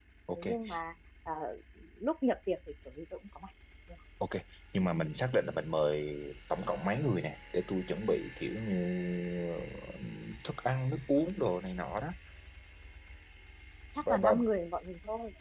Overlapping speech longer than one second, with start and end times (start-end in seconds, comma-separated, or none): none